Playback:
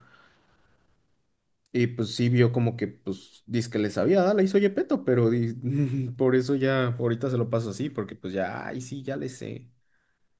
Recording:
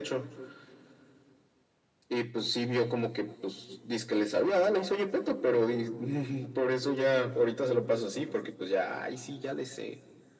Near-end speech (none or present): none